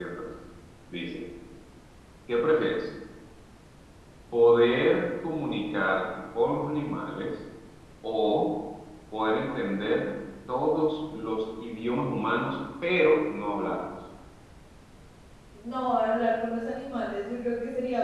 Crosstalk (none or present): none